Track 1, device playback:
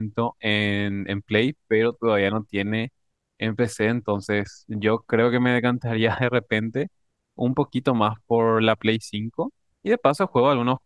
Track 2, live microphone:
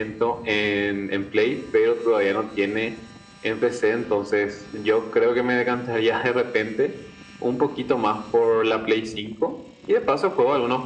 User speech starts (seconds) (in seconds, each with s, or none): none